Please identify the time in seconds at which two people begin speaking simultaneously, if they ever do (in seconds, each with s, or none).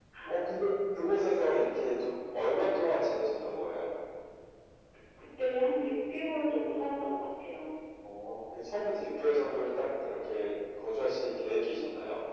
none